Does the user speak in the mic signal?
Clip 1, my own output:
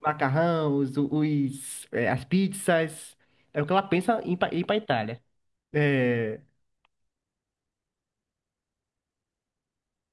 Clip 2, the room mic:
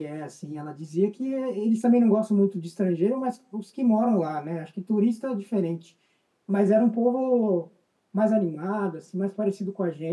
Yes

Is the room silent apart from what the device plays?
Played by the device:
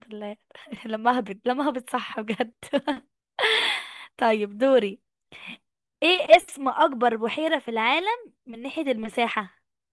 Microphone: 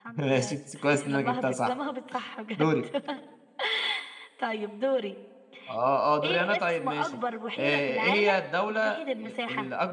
No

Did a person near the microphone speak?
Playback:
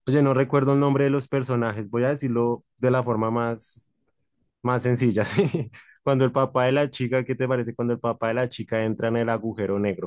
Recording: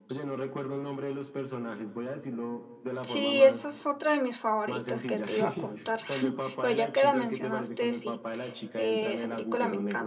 Yes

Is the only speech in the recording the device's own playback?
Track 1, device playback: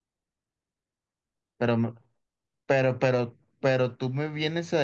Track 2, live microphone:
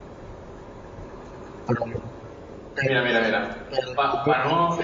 No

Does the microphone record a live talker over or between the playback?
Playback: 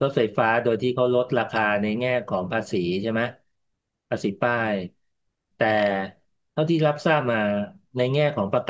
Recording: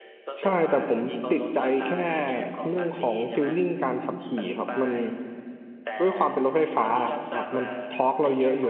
Yes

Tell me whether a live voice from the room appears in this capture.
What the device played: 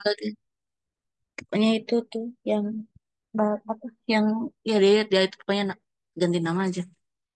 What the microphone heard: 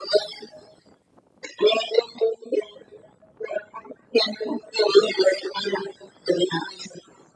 No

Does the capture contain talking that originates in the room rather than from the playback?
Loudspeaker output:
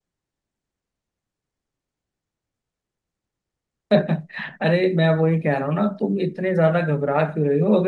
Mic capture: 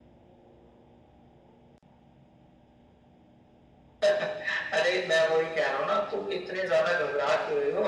No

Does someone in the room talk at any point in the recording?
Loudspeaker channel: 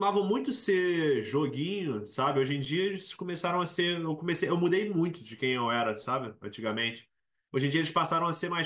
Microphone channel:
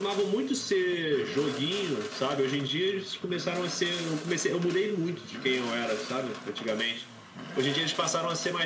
No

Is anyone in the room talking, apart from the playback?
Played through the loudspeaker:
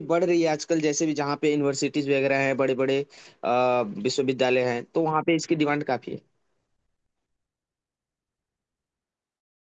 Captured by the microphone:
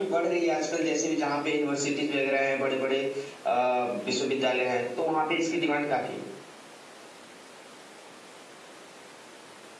No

